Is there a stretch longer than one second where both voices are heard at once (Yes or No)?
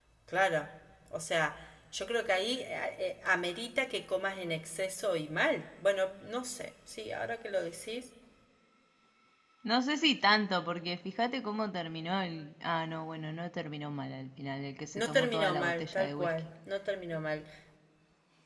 Yes